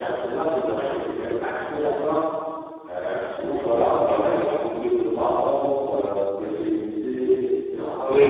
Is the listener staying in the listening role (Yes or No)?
No